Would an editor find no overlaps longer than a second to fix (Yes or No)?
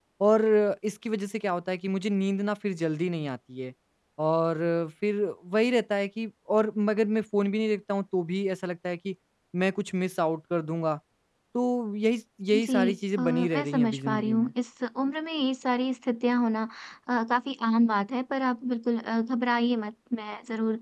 No